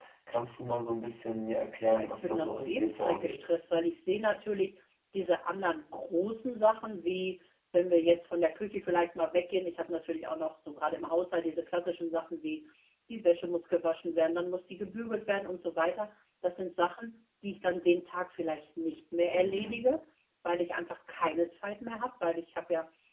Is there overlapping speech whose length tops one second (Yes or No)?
Yes